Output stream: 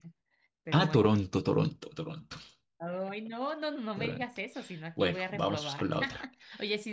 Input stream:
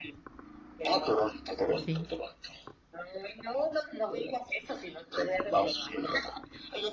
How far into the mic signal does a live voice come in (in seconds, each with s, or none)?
1.8 s